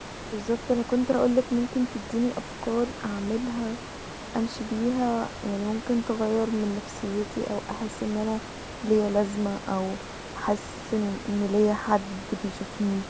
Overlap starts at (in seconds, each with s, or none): none